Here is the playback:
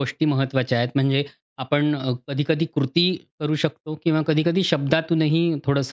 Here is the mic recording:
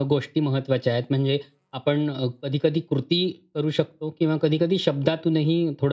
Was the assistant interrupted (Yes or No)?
No